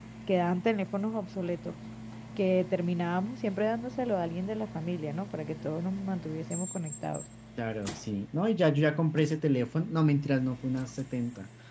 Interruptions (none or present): none